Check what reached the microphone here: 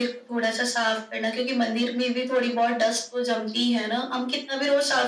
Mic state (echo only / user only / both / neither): echo only